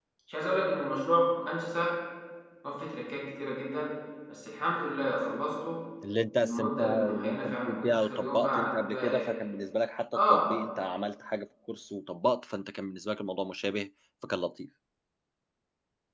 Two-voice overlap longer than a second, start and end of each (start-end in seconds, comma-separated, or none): 6.4-9.3